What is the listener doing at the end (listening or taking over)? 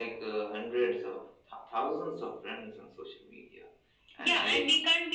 taking over